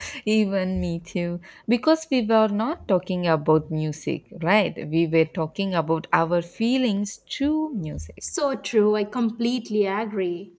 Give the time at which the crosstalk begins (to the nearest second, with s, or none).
none